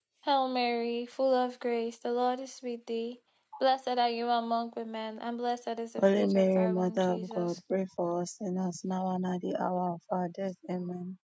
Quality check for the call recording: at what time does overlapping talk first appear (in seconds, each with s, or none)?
6.0 s